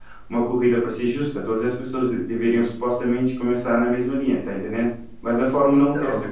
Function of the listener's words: listening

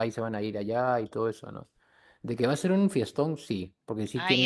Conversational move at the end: taking over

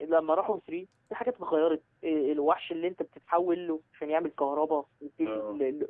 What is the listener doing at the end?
listening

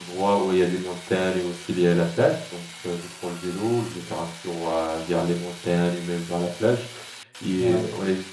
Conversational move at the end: listening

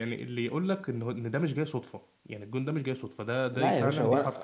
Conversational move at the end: taking over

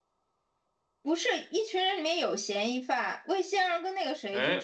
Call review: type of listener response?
listening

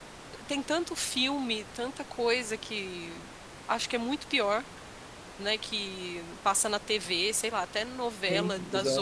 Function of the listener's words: listening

